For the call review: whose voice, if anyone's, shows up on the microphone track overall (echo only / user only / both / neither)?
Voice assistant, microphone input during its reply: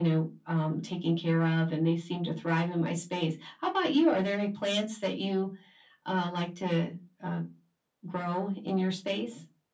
echo only